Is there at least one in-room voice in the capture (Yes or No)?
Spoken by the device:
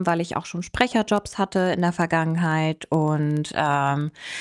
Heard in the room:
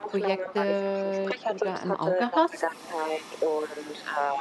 Yes